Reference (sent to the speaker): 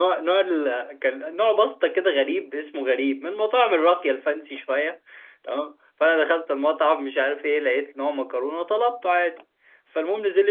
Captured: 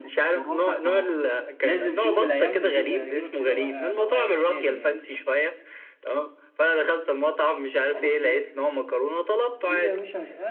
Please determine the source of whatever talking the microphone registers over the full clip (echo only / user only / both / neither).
both